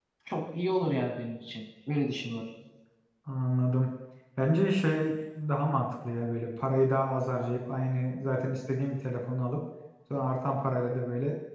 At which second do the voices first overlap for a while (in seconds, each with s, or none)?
none